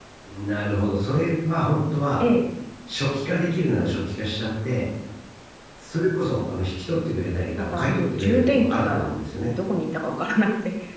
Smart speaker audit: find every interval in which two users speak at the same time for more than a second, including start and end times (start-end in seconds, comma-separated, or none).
7.6-9.1